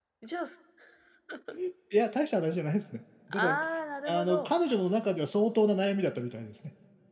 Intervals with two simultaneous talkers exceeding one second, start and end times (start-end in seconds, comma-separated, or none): none